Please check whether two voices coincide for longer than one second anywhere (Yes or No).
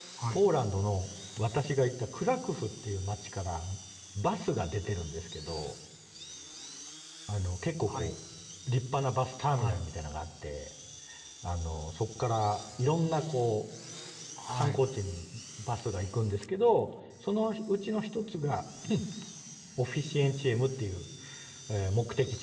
No